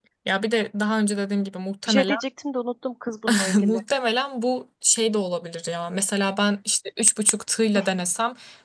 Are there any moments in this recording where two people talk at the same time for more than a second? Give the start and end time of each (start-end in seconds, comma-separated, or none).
none